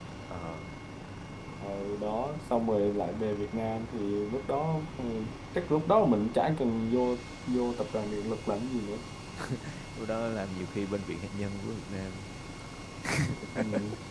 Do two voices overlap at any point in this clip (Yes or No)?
No